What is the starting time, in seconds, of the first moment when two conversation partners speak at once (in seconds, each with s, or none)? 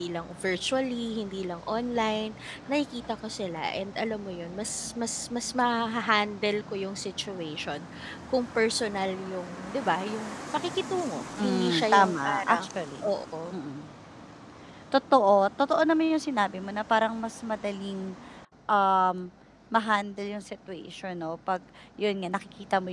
11.4 s